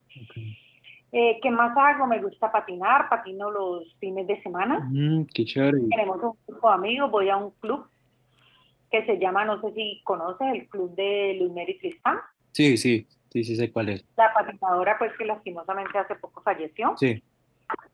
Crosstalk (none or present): none